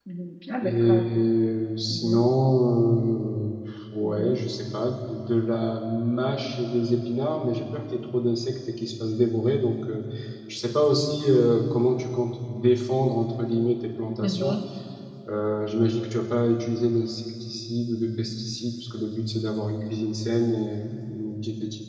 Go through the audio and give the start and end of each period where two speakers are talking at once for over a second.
none

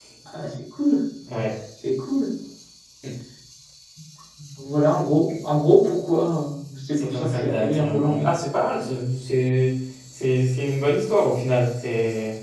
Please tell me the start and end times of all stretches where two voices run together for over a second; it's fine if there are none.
7.0-8.3

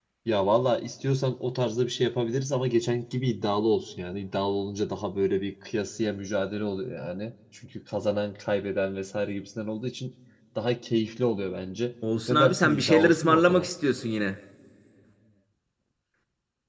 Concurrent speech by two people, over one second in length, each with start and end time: 12.3-13.7

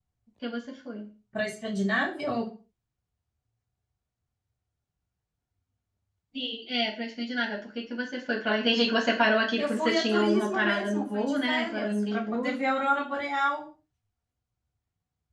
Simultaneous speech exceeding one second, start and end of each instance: 9.6-12.6

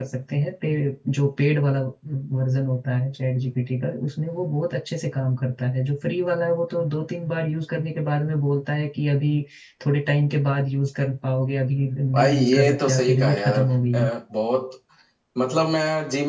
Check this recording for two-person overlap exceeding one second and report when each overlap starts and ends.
12.1-14.1

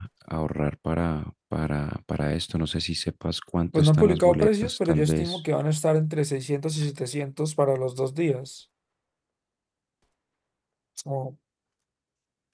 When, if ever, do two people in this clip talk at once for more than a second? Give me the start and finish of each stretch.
3.7-5.4

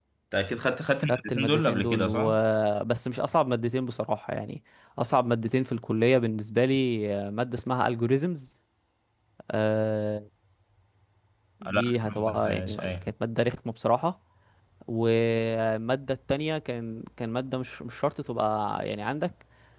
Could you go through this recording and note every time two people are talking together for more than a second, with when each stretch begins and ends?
1.0-2.3, 11.6-13.0

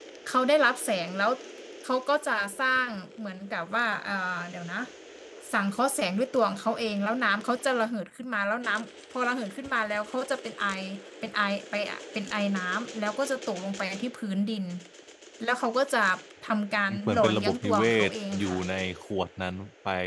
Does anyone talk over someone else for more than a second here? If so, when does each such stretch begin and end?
16.9-18.6

